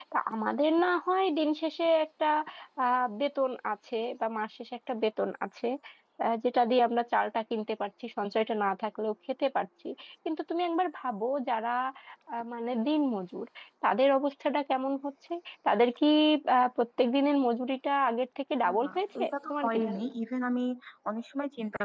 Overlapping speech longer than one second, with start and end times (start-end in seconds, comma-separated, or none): 18.8-20.1